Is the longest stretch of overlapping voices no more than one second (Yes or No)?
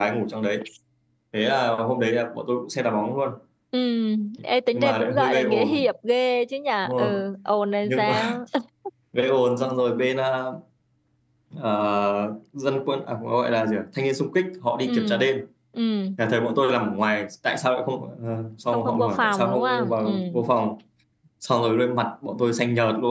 No